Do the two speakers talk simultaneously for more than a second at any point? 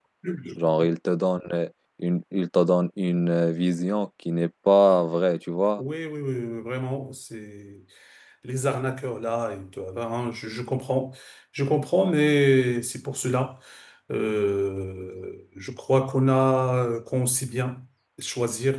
No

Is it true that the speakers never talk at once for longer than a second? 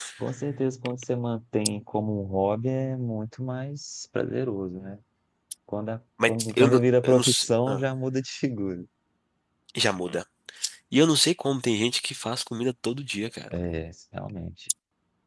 No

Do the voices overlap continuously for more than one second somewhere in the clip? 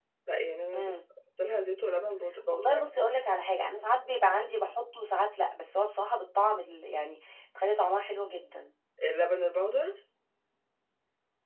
No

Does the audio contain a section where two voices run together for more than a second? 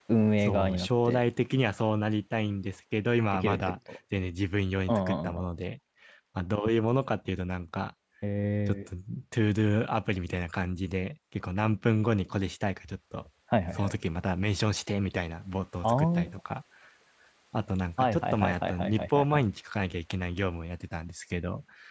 Yes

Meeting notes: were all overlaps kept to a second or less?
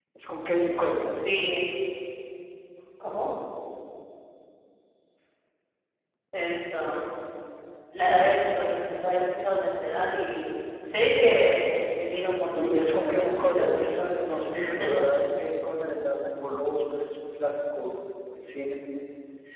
No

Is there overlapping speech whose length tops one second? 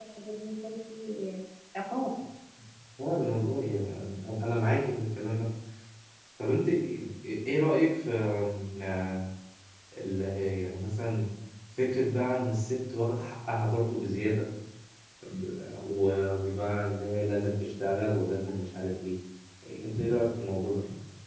No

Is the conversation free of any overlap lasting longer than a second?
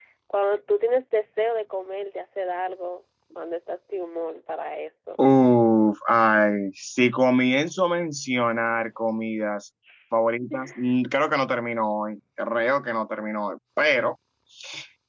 Yes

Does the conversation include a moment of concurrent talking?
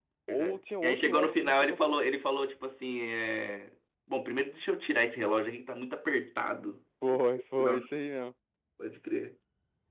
Yes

